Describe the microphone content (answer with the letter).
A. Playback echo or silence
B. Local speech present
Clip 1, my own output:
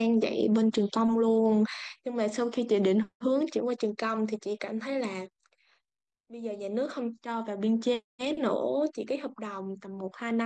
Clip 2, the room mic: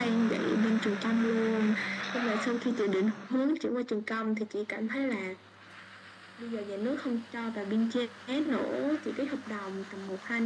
A